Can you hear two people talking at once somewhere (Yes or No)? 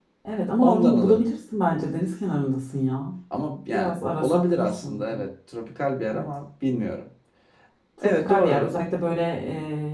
Yes